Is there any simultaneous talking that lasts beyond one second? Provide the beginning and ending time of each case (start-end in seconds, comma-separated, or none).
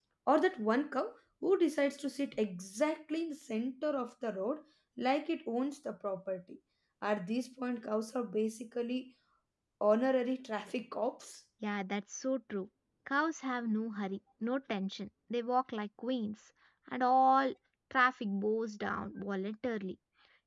none